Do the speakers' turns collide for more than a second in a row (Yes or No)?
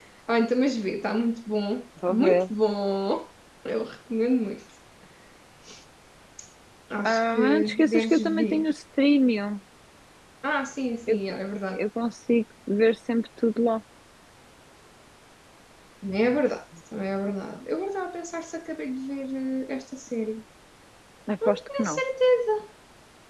Yes